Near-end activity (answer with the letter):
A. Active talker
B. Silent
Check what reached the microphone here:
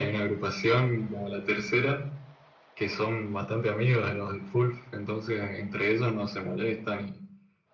B